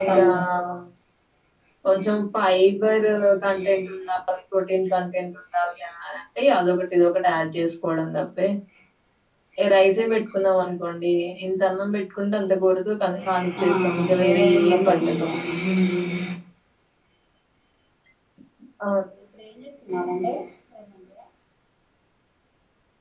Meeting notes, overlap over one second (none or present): present